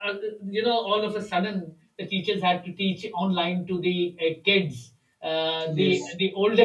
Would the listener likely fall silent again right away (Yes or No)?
Yes